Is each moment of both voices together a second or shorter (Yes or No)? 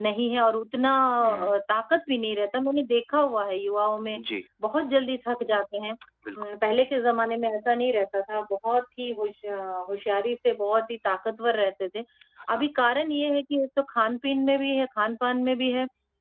Yes